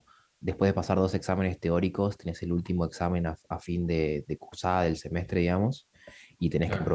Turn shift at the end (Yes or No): No